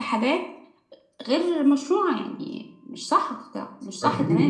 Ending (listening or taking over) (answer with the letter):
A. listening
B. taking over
B